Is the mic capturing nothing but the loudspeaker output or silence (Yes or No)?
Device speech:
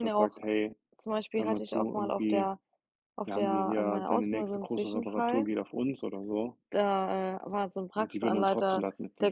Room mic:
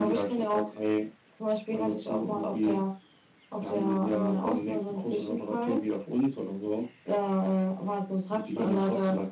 Yes